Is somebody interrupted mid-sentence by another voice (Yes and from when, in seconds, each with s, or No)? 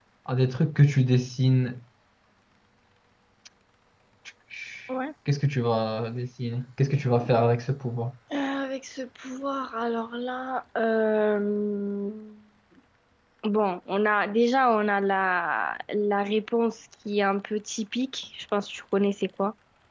No